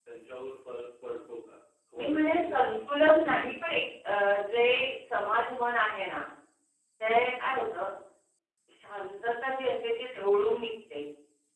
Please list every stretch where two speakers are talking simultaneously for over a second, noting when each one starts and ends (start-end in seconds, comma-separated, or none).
2.0-3.7